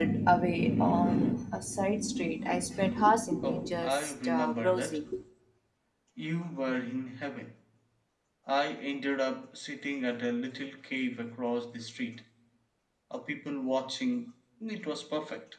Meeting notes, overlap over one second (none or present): present